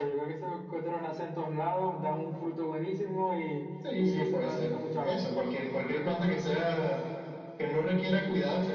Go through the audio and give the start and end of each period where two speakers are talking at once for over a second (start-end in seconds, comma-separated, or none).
4.0-5.3